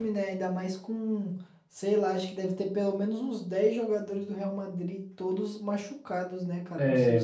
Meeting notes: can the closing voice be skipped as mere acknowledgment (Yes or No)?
No